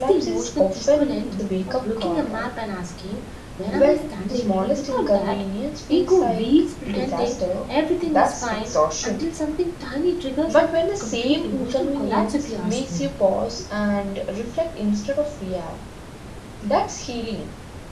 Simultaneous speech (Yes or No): Yes